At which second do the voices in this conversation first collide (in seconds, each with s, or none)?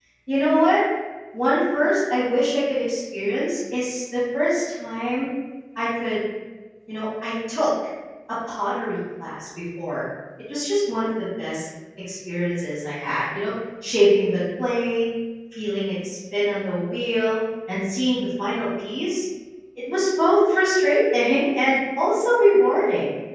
none